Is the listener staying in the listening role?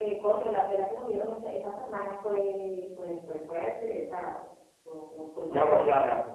No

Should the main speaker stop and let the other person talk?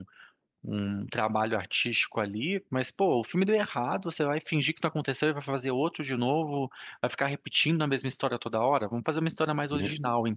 No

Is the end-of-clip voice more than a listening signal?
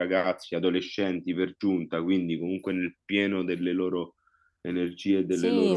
Yes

